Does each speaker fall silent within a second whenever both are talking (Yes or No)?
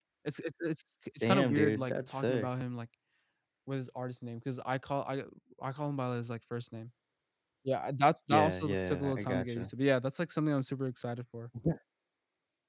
No